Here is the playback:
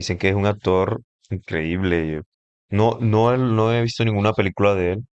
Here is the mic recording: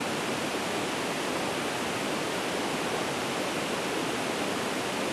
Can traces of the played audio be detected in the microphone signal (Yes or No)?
No